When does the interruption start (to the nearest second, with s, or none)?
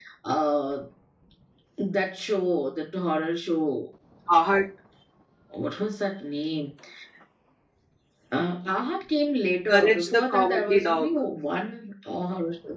10 s